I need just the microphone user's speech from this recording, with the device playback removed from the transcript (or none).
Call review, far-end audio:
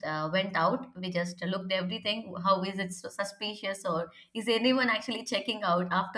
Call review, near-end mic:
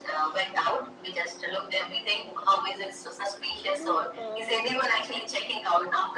I know um,